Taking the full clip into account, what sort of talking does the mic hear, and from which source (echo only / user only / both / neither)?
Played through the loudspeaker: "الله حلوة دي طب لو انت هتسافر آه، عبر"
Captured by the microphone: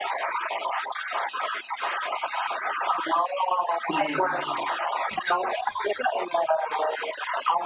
both